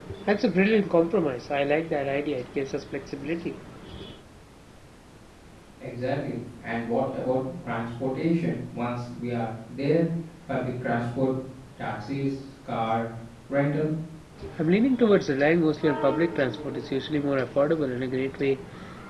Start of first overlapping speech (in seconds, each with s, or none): none